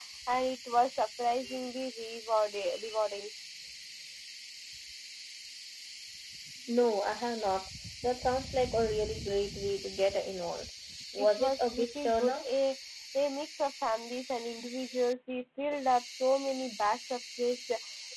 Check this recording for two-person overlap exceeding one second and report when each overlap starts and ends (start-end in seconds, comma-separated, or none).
11.2-12.4